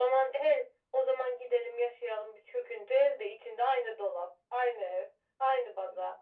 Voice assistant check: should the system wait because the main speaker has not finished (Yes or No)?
Yes